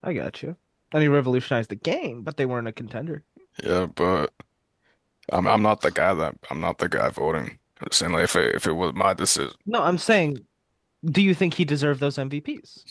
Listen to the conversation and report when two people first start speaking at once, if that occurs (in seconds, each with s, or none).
none